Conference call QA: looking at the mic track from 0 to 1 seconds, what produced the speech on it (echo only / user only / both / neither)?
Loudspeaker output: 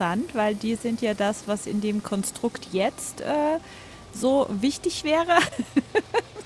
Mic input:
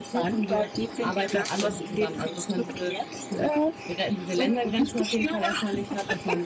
both